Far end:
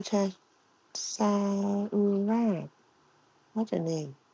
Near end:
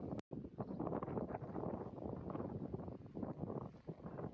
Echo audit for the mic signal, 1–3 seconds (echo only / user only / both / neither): neither